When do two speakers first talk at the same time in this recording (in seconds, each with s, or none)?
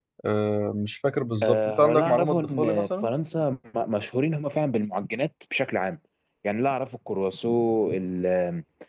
1.4 s